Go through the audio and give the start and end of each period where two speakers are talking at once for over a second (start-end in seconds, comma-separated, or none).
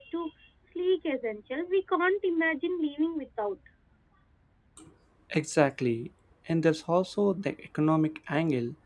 none